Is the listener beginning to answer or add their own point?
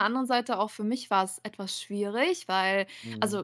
No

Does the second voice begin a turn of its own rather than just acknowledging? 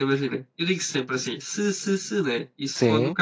No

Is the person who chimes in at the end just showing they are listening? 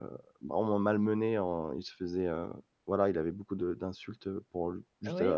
No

